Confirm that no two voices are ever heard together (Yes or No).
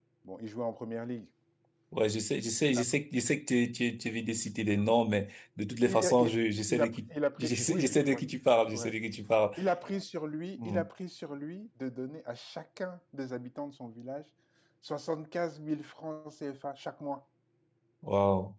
No